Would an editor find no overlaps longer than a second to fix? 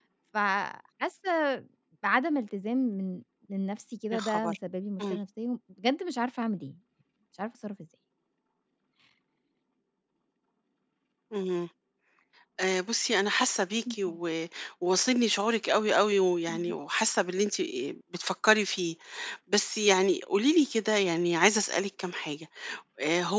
Yes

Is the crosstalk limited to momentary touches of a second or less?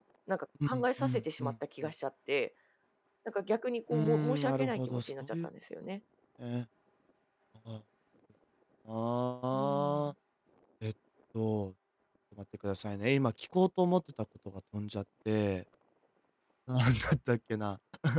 No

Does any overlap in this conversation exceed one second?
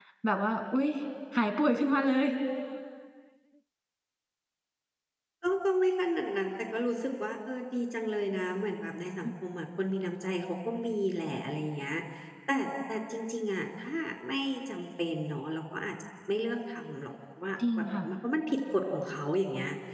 No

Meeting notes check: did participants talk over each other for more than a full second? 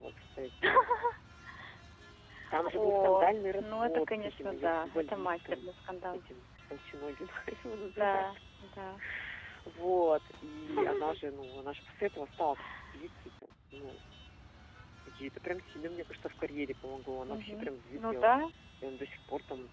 Yes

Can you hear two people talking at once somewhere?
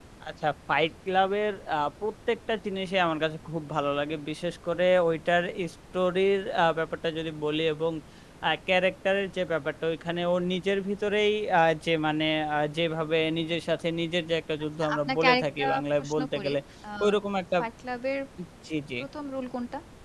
Yes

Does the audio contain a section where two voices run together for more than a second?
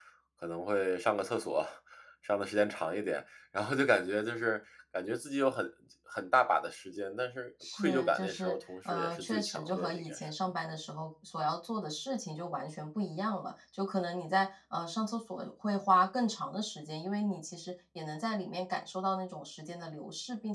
Yes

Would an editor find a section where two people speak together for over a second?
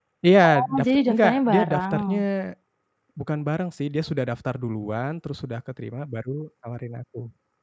Yes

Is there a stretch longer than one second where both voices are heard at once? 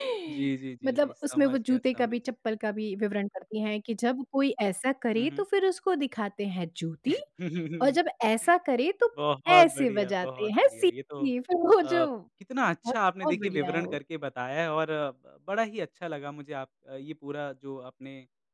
Yes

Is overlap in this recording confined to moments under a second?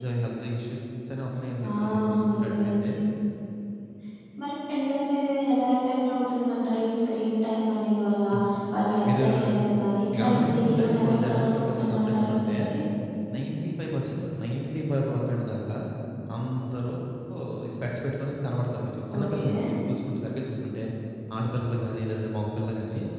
No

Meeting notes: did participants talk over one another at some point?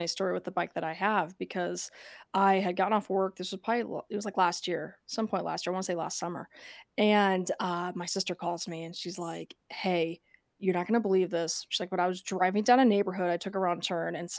No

